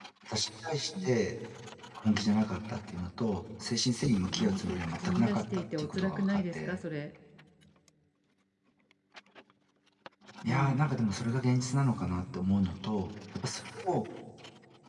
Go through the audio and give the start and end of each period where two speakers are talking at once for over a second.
4.3-6.8

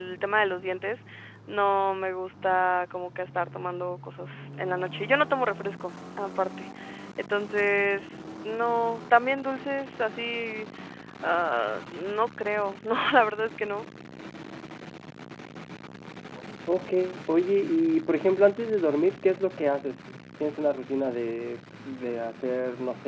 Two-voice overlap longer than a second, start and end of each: none

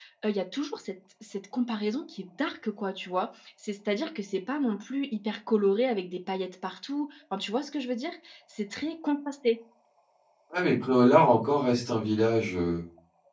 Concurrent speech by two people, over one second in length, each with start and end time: none

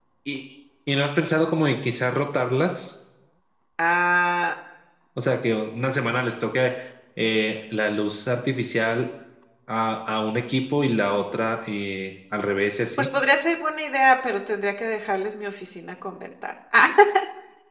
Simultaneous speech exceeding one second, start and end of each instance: none

